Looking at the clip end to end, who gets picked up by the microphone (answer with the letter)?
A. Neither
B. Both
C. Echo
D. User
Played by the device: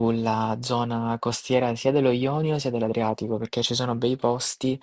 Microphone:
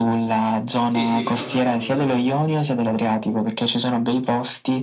B